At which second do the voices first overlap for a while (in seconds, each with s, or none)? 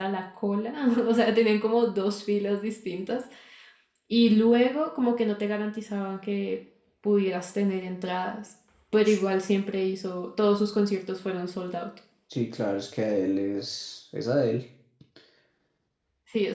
none